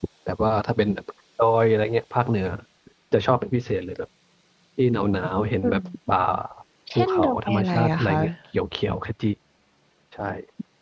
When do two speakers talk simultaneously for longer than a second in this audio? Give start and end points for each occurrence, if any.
7.0-8.2

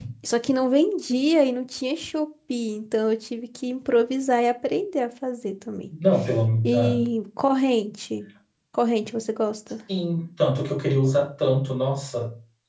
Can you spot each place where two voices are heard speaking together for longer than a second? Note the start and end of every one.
none

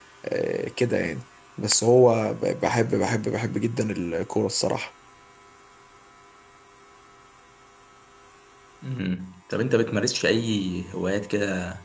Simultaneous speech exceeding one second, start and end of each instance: none

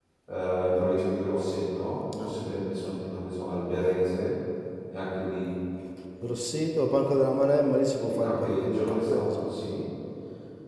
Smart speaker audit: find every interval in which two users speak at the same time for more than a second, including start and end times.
8.0-9.5

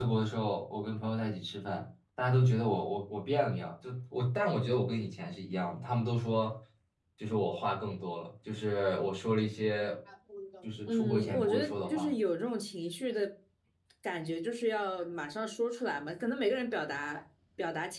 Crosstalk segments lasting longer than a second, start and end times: 10.9-12.1

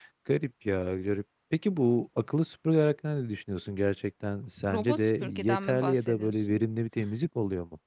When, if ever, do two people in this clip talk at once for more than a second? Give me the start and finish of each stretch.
4.7-6.6

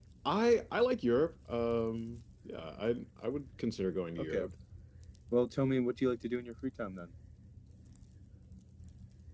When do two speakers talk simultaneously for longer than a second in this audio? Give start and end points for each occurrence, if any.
none

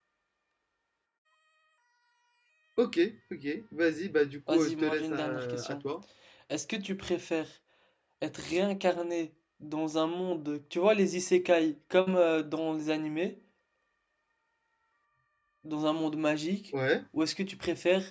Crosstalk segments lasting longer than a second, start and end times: 4.5-5.8

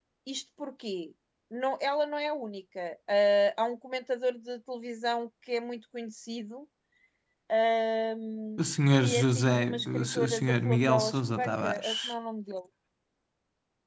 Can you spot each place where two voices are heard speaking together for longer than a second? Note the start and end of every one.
9.0-12.1

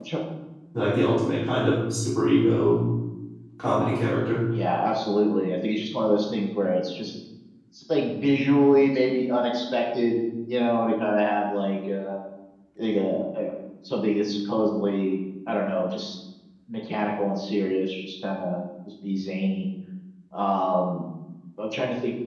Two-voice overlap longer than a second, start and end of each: none

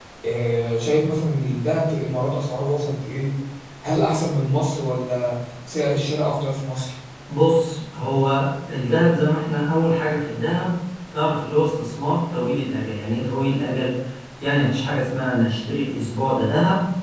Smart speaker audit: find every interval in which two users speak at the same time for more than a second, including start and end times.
none

